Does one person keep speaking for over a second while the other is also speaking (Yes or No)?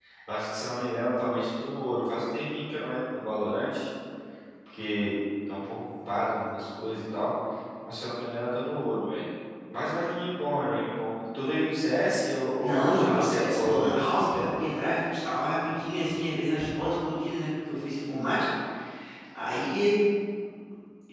Yes